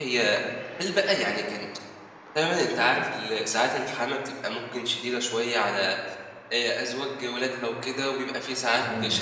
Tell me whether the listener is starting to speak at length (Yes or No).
No